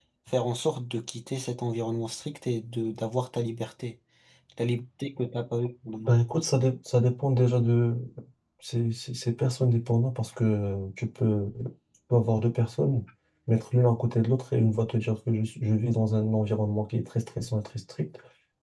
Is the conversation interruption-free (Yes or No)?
Yes